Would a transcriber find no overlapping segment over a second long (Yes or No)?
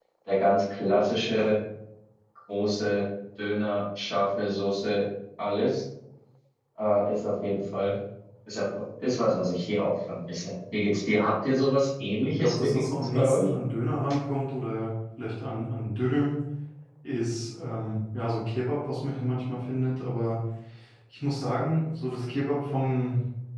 No